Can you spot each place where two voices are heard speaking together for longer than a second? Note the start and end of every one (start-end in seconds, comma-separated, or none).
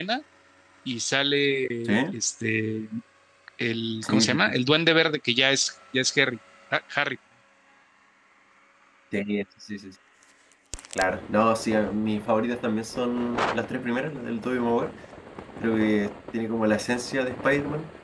none